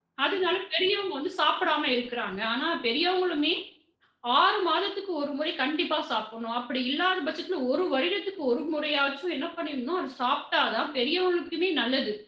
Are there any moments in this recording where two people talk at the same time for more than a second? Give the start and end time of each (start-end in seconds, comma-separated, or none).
none